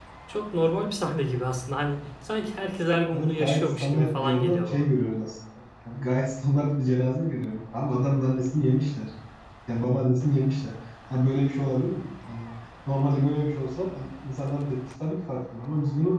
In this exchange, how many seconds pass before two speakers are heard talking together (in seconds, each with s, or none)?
3.1 s